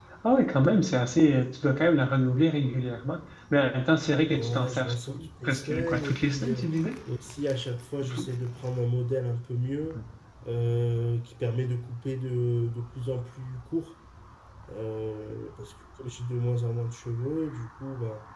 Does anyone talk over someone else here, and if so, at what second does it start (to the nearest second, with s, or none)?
4 s